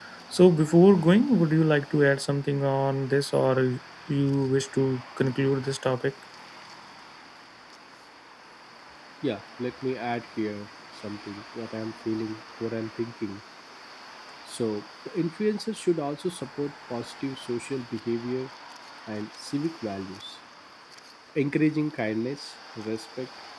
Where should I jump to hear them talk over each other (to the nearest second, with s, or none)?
none